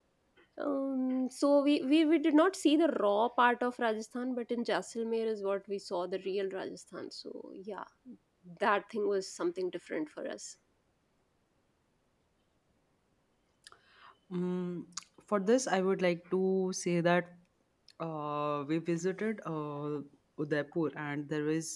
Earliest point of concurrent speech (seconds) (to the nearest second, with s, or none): none